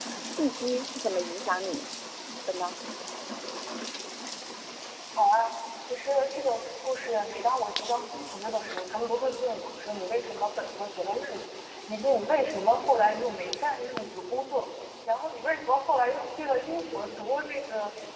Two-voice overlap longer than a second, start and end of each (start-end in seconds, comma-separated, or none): none